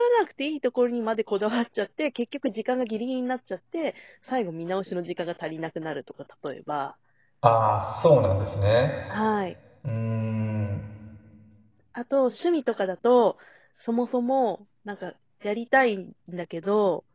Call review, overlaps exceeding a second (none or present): none